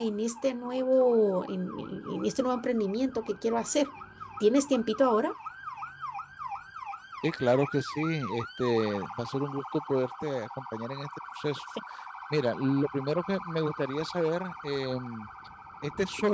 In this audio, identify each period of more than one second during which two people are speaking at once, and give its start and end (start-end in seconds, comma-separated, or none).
none